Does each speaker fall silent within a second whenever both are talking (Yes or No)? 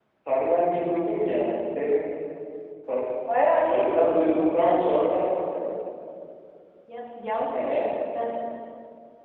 No